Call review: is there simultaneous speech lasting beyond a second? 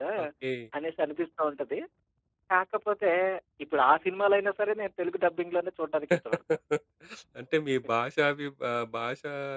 No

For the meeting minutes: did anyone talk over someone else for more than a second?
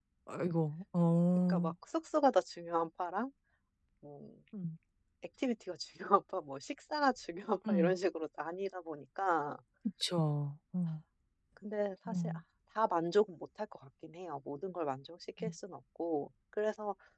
No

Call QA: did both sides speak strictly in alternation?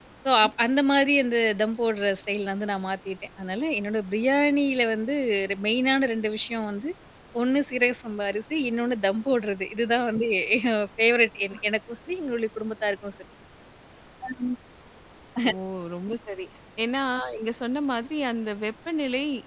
Yes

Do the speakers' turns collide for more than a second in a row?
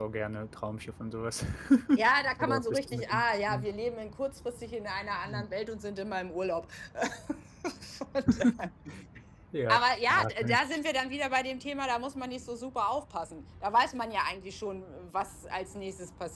Yes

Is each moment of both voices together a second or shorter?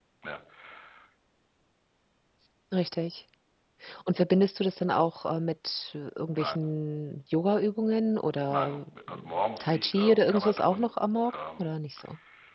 No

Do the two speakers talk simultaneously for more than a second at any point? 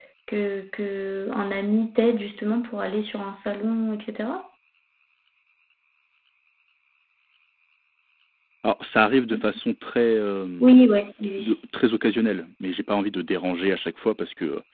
No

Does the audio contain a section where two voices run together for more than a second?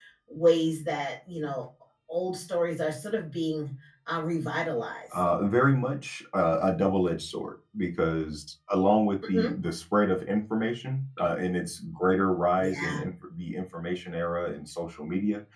No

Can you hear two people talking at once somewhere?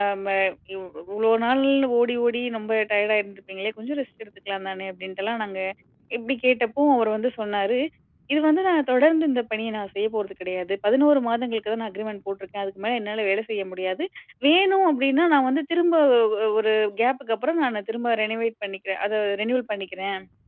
No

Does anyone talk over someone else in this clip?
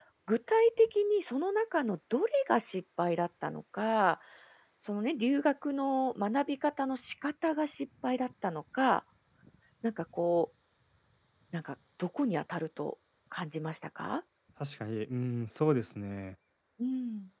No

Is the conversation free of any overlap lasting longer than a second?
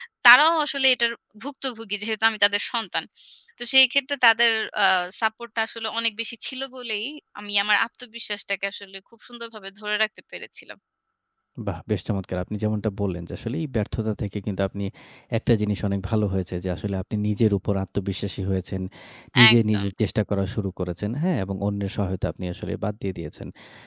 Yes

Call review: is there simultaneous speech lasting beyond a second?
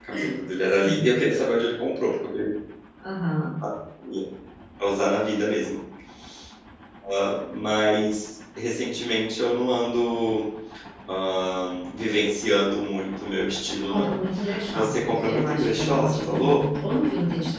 Yes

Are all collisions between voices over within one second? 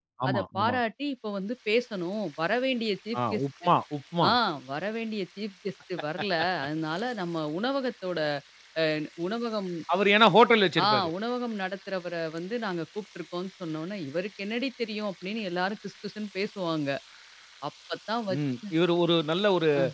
Yes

